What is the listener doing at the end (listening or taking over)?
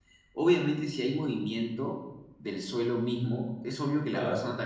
listening